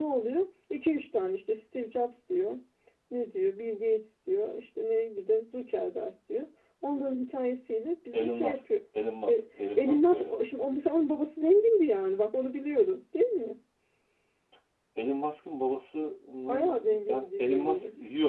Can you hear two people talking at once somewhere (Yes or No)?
Yes